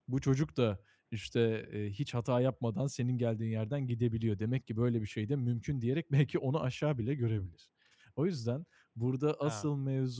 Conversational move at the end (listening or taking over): listening